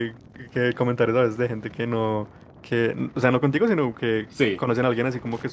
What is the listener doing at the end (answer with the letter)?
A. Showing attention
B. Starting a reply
A